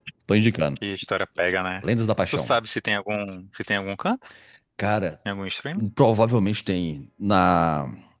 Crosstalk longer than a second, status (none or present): none